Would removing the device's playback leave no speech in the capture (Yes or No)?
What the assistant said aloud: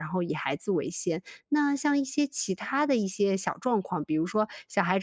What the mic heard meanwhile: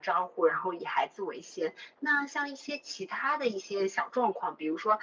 Yes